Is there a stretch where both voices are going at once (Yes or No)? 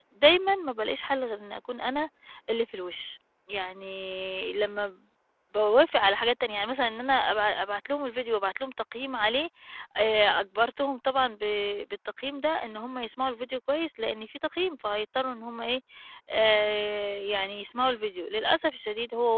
No